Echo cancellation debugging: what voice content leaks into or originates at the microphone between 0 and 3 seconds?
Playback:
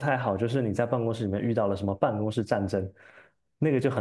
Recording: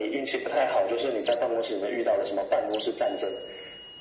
echo only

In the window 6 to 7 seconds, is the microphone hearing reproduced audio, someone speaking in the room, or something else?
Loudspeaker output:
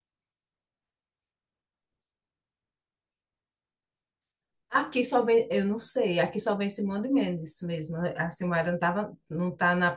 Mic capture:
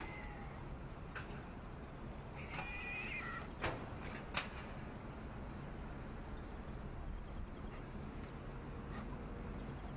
neither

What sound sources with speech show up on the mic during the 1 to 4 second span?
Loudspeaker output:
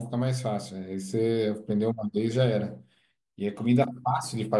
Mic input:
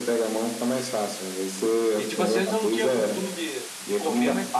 both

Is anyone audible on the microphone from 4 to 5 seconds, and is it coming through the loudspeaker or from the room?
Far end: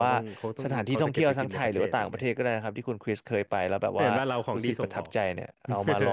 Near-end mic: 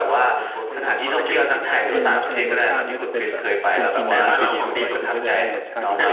both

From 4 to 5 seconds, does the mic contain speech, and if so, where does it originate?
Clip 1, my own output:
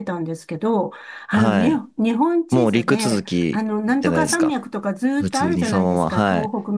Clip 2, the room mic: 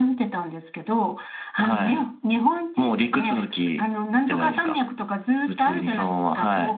both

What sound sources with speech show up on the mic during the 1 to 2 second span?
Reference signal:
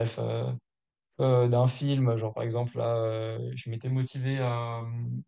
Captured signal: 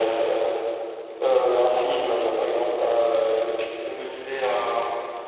echo only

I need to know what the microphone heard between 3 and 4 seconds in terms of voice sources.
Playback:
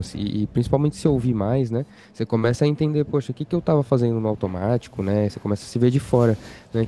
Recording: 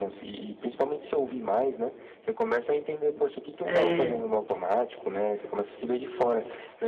both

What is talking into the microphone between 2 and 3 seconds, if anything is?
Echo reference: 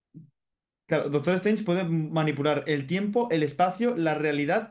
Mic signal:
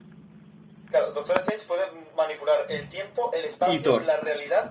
echo only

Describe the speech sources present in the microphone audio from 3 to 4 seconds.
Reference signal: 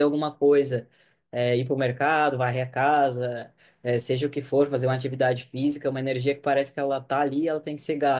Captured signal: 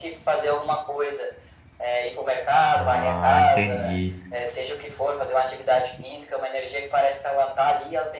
both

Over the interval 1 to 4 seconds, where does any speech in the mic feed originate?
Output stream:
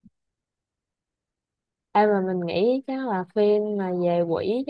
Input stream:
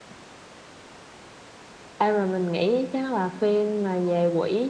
echo only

